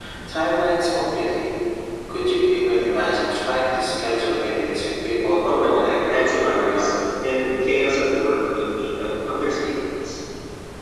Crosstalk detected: Yes, from 5.4 s

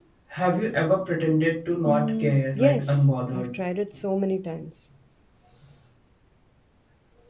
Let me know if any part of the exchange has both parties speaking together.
Yes, from 1.9 s

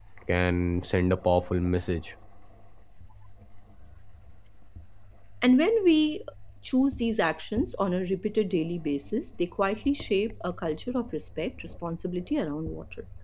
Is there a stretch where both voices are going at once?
No

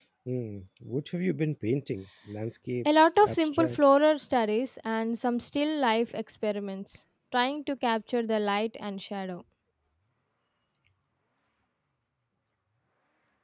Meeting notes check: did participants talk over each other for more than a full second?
Yes, from 2.9 s

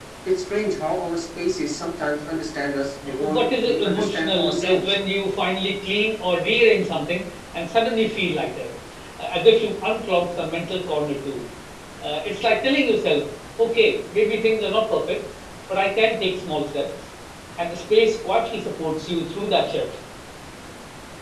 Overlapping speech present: Yes, from 3.0 s

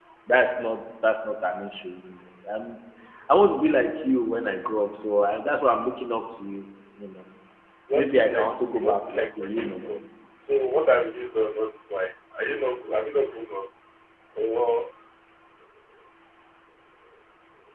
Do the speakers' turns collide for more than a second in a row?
Yes, from 7.9 s

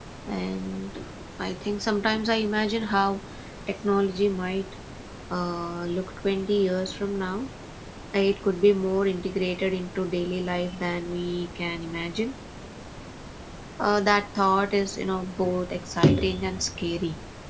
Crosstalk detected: No

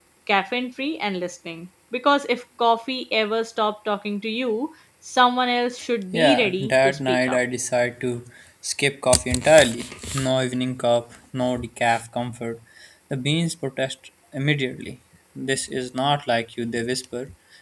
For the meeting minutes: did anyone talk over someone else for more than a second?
Yes, from 6.1 s

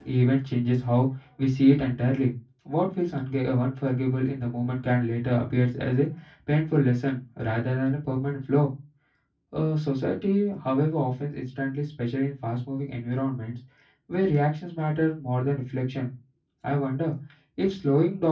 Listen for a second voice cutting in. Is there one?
No

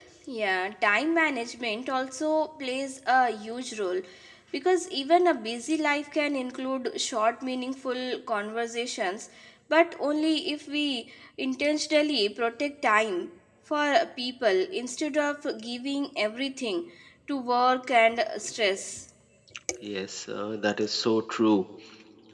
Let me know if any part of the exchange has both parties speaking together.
No

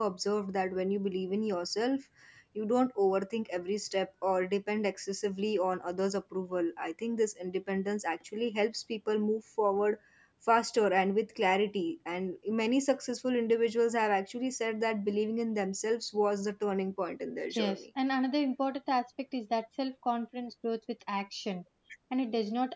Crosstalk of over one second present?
No

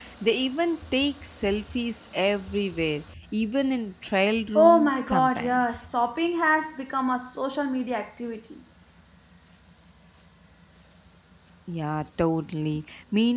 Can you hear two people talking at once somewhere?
Yes, from 4.6 s

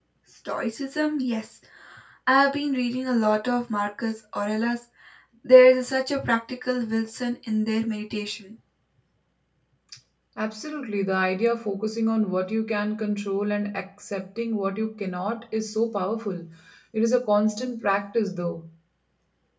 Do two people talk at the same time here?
No

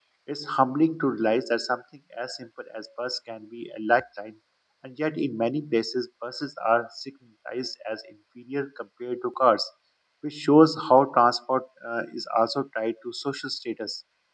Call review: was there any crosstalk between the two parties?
No

